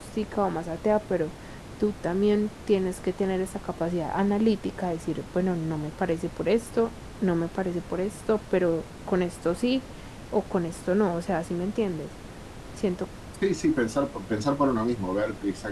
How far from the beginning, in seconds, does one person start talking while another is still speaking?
none

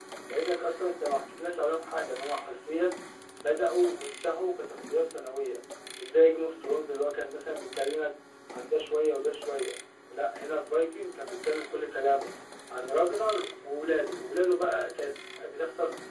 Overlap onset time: none

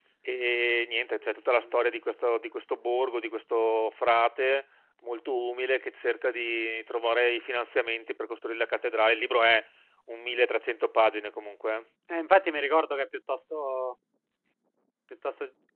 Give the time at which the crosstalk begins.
none

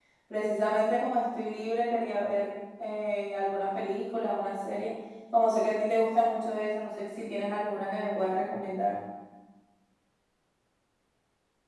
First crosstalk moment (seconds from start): none

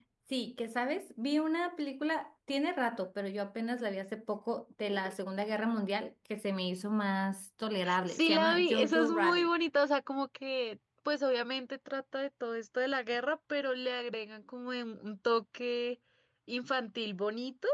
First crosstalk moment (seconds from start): 8 s

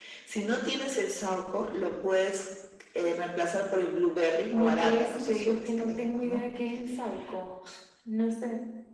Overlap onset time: 4 s

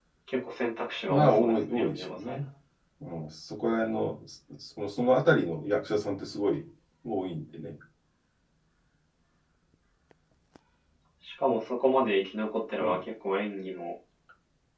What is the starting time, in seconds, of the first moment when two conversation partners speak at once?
1 s

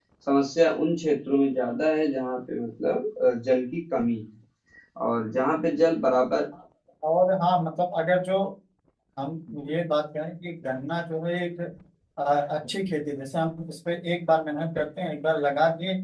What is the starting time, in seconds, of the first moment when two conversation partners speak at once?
none

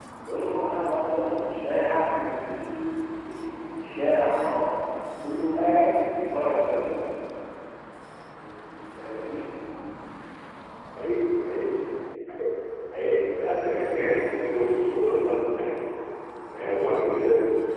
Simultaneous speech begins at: none

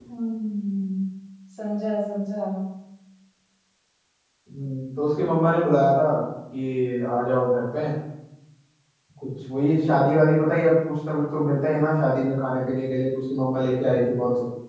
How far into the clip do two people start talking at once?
none

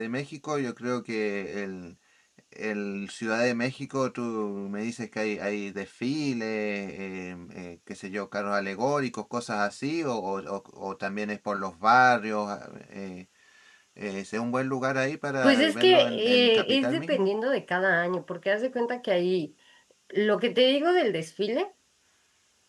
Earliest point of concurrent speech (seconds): 15 s

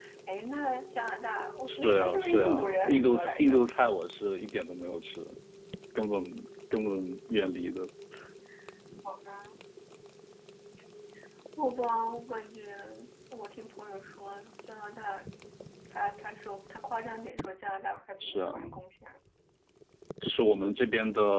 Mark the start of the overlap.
2 s

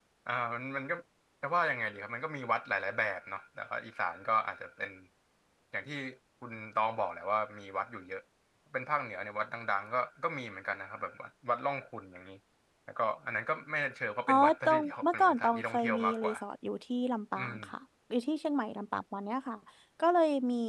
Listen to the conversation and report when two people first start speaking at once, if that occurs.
14 s

